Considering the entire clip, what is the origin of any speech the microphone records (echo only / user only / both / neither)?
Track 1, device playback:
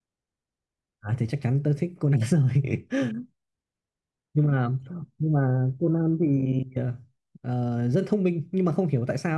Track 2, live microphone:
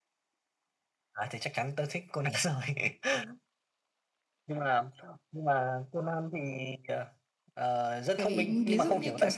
both